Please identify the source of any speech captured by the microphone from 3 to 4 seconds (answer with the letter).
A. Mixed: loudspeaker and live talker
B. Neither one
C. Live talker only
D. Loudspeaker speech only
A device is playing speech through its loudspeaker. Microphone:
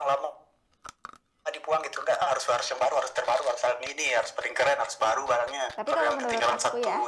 D